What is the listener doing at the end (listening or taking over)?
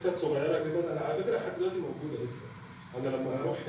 listening